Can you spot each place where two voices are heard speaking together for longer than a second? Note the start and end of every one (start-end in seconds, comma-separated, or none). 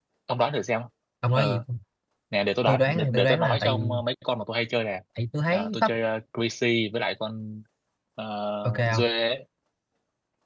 2.7-4.0